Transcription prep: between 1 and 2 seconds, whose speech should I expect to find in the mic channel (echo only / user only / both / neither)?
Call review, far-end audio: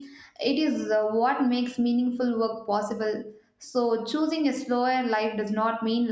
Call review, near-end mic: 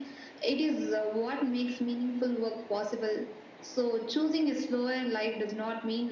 echo only